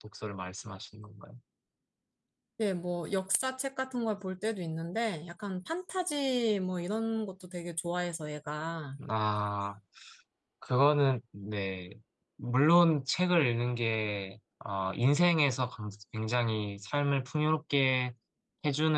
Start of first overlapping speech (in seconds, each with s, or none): none